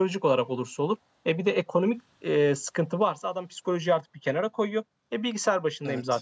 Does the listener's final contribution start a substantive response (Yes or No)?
No